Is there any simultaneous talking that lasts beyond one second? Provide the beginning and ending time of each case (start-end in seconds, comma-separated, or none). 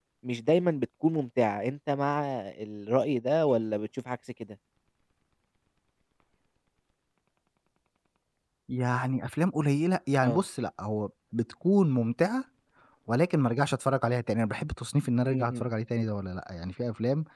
none